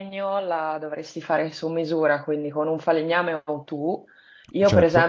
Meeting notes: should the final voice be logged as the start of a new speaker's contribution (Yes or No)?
No